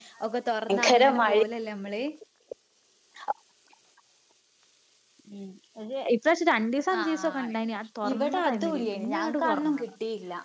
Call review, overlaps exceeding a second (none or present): present